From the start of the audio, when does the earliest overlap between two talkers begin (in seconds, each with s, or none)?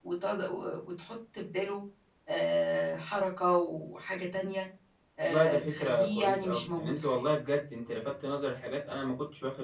5.2 s